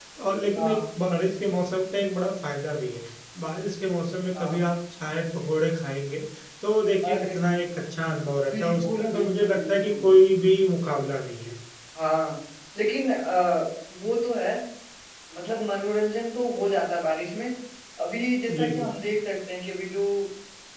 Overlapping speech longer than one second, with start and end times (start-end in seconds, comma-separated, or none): 8.5-10.0